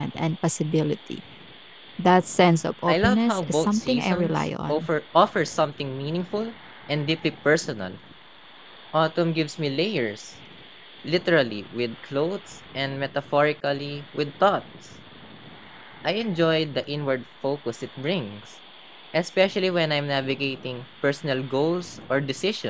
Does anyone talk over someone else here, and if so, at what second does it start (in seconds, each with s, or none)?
2.9 s